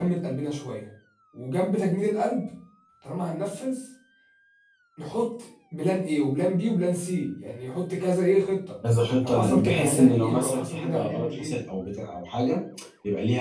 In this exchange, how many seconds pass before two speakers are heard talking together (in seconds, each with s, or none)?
9.2 s